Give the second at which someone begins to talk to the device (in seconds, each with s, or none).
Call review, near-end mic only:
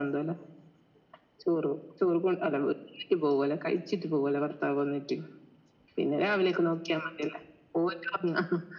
none